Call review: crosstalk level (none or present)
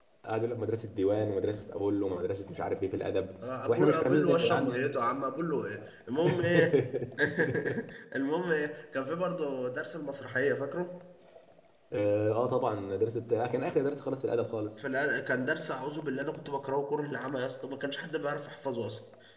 present